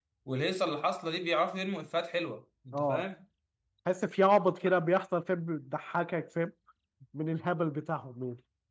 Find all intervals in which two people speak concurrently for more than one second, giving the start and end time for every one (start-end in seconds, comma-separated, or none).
none